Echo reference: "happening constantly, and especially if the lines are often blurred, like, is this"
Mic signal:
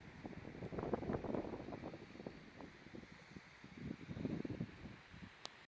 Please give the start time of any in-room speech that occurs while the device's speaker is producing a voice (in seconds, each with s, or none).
none